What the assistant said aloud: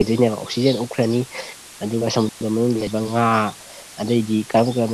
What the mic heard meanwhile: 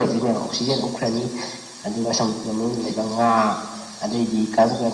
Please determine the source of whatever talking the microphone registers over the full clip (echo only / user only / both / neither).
echo only